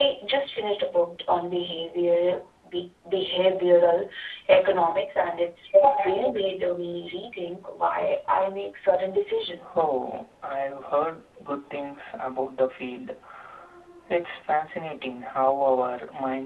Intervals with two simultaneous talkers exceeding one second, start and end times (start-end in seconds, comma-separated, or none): none